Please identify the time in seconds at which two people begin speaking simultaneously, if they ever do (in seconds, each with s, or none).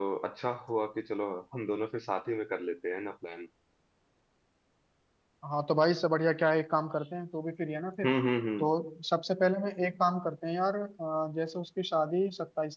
none